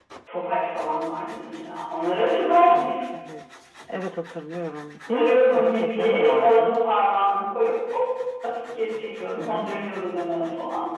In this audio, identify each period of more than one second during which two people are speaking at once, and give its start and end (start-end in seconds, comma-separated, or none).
5.1-6.7